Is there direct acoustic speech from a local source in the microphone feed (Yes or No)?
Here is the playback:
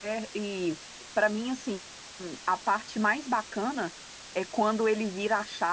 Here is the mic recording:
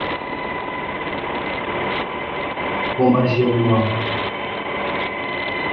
Yes